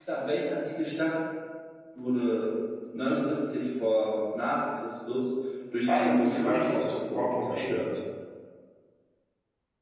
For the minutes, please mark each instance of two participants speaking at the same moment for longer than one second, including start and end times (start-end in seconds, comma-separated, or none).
5.9-7.8